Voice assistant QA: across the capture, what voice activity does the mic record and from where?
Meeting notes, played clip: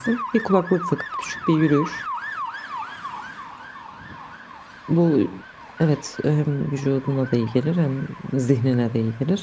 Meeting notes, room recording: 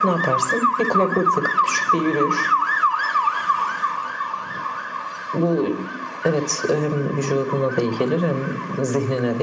echo only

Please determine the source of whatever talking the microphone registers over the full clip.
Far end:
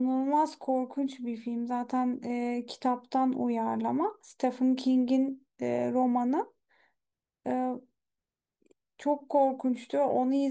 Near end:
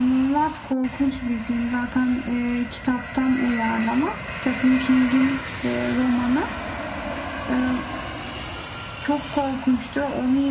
echo only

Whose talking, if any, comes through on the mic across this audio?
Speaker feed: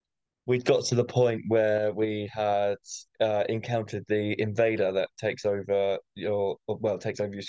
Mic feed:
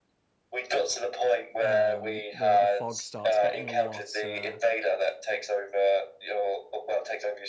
both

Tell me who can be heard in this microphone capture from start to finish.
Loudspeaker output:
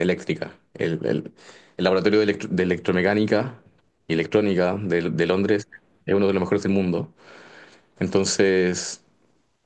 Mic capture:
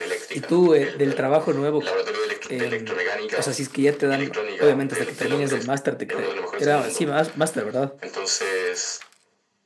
both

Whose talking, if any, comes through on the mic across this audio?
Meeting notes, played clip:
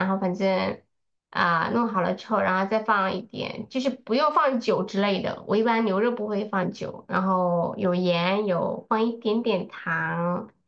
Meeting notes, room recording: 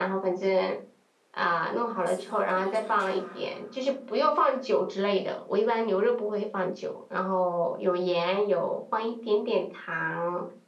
both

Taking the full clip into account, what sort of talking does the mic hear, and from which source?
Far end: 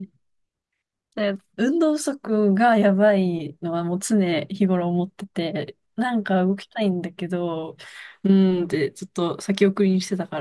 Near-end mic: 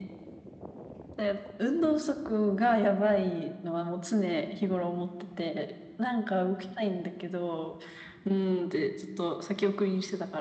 echo only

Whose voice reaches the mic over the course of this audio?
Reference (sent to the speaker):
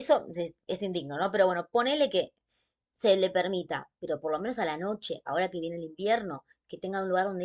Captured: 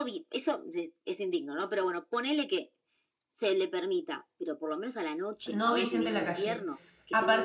both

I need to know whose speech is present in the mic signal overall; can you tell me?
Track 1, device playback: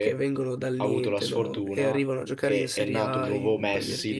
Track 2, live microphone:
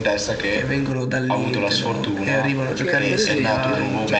both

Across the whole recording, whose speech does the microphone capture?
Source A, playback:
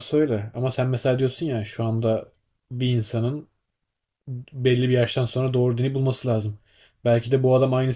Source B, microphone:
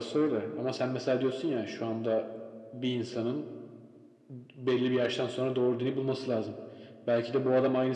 echo only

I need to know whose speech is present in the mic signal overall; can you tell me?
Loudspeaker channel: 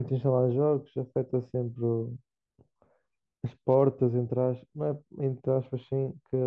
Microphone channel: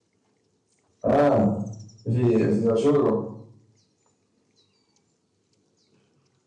user only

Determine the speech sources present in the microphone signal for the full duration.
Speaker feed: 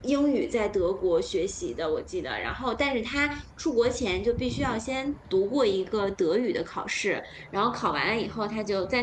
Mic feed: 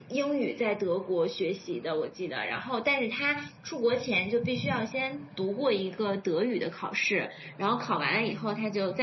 echo only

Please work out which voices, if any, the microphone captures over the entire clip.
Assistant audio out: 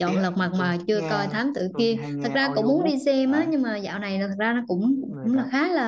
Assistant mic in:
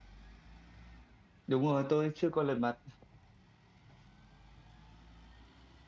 user only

